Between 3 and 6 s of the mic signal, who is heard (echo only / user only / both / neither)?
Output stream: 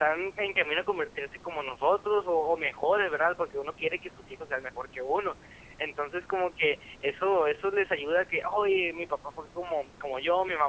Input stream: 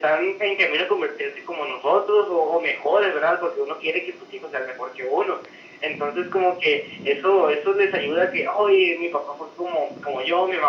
echo only